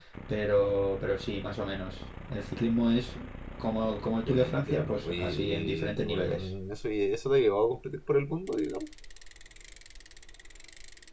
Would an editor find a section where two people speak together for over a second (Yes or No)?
Yes